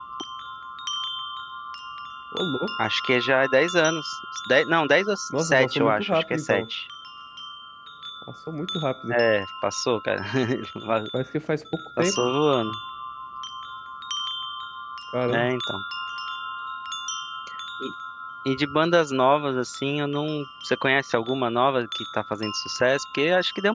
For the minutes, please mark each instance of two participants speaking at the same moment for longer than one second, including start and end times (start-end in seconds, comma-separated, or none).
5.4-6.6